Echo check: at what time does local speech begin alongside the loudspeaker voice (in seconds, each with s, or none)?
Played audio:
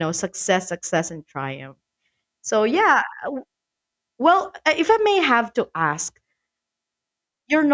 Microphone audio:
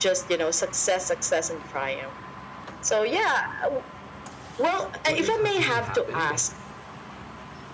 5.0 s